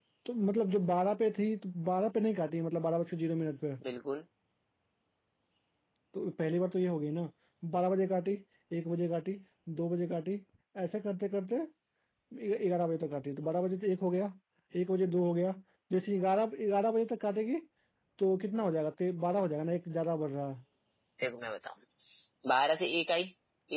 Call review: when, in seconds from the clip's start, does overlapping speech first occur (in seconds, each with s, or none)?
none